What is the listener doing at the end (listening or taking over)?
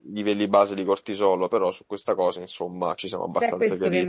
taking over